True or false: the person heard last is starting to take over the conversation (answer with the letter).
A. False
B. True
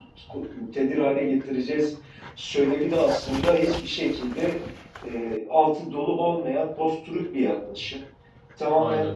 A